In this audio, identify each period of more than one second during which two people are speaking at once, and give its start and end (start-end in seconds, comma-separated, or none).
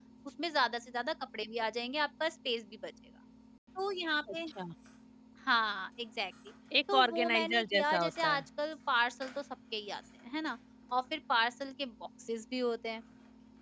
6.9-8.4